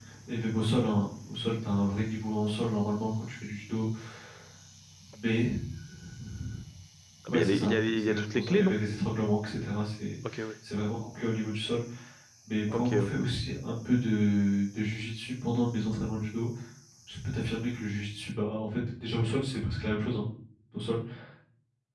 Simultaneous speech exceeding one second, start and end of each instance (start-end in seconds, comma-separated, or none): 7.3-8.8